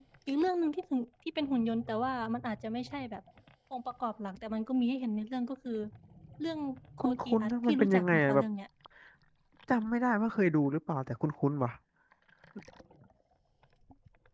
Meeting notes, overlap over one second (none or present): present